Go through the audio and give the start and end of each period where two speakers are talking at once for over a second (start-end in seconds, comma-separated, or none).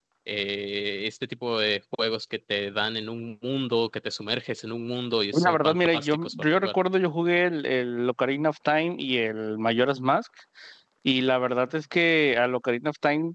5.3-6.7